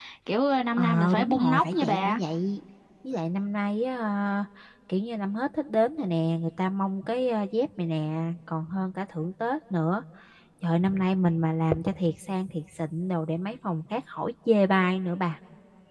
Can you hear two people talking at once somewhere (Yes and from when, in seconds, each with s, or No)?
Yes, from 0.8 s